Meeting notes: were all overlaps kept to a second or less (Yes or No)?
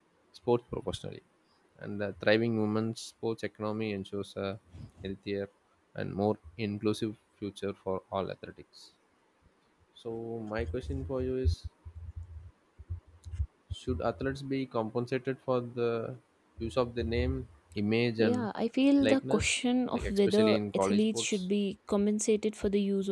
No